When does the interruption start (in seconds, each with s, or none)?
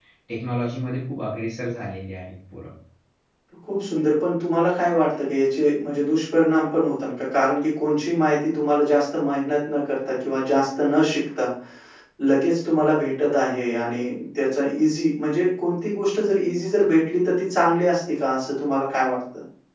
none